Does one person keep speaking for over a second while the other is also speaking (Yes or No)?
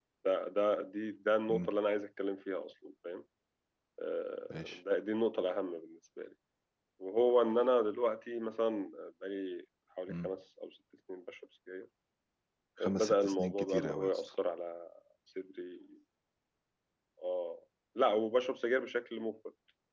Yes